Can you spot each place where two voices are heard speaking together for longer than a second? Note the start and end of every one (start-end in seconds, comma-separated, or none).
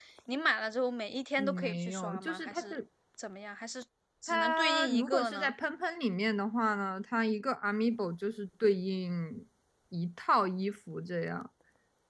1.4-2.8, 4.3-5.5